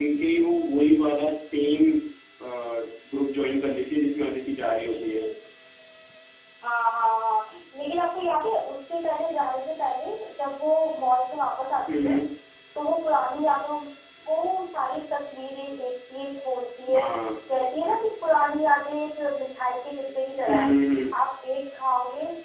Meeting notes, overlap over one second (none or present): none